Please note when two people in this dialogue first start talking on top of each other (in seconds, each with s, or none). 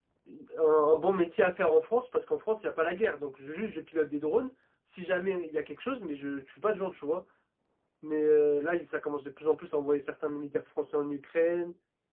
none